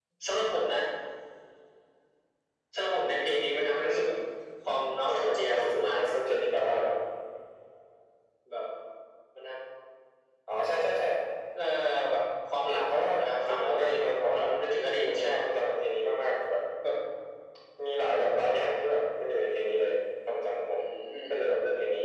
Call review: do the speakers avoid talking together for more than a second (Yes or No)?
No